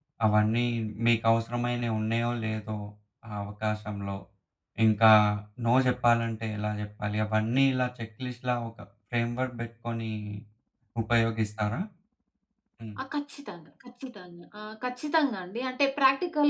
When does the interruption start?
none

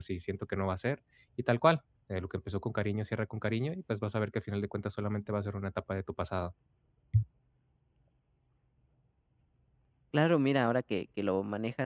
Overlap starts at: none

